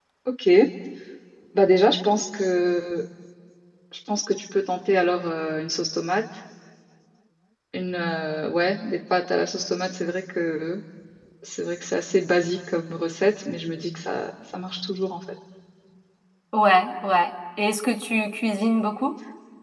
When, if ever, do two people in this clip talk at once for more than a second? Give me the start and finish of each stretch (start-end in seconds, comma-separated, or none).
none